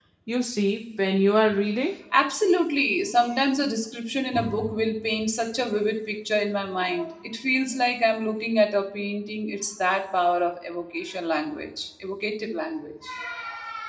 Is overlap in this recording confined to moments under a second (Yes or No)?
Yes